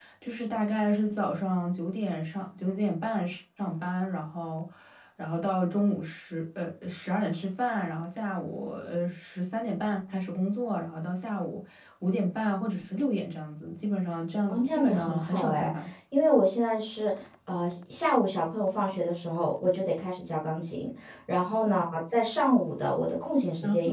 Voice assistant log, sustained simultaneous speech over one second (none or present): present